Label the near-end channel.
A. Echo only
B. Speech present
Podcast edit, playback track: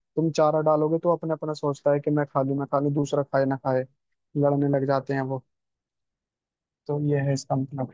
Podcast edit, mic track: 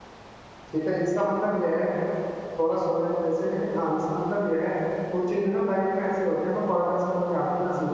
B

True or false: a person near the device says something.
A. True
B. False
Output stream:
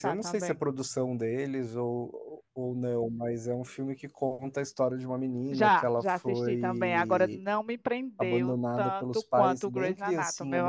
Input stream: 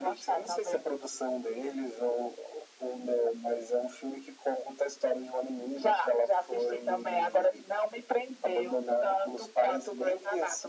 B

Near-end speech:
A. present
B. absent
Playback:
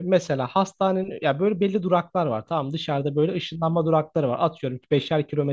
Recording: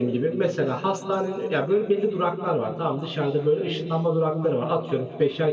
B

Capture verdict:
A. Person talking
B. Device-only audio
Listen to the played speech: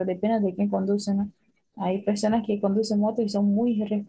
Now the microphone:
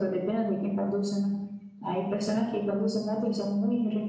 B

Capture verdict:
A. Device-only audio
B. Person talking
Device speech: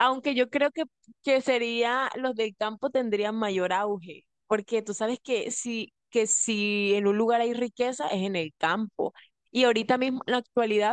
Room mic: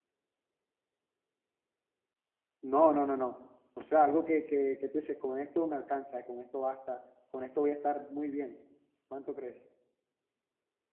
B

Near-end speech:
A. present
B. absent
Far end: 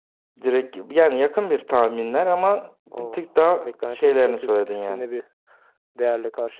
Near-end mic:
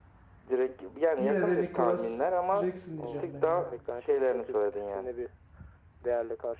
A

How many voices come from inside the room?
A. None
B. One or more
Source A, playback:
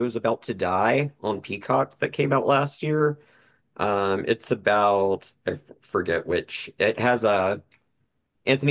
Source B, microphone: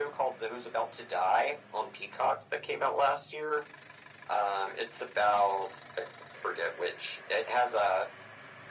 A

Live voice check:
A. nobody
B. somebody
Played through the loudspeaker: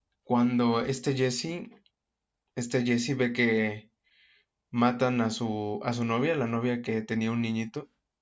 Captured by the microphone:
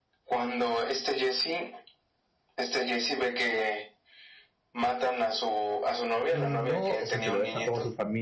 B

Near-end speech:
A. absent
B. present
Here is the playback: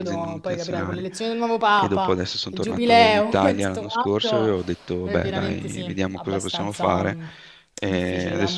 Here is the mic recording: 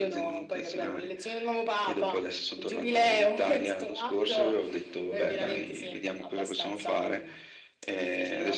A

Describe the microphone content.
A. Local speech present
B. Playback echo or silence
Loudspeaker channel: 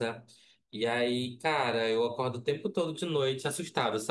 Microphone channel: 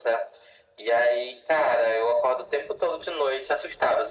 B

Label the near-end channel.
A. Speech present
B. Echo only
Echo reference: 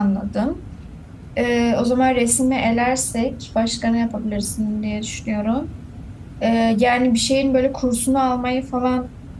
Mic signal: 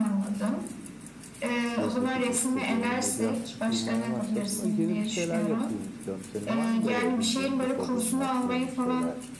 A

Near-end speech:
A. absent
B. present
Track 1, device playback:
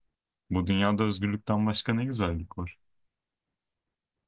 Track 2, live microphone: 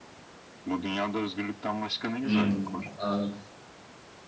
B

